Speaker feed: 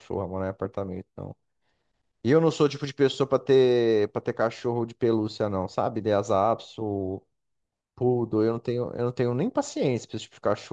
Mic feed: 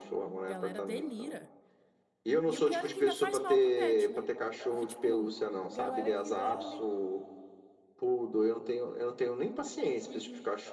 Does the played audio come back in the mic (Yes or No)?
Yes